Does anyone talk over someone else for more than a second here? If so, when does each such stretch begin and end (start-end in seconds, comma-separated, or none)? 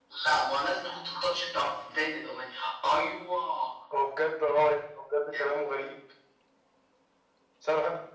none